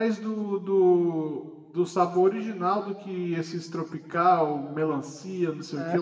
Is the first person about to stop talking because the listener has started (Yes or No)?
Yes